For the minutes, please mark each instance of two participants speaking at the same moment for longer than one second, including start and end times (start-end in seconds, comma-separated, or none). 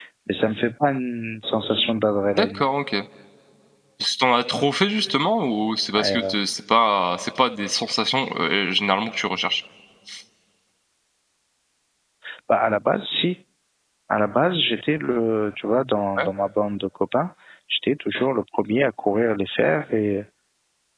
none